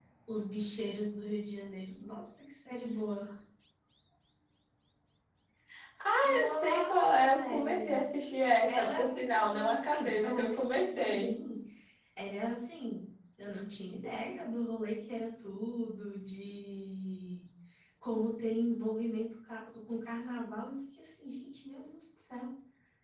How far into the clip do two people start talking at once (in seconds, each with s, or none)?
6.4 s